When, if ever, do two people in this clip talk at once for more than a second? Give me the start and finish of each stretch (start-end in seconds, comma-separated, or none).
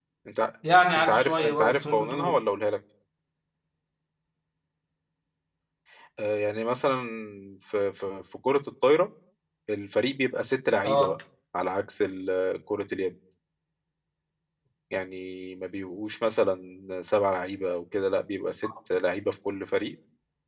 1.0-2.4